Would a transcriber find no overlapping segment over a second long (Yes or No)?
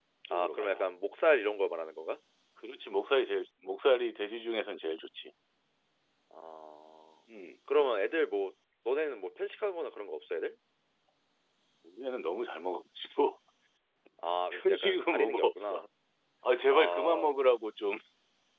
No